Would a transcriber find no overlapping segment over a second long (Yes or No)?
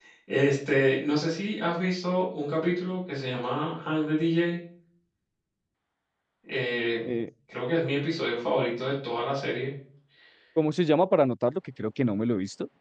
Yes